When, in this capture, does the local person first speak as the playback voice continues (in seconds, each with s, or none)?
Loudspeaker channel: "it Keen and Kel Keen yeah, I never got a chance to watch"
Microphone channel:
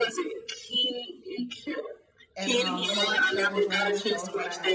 2.4 s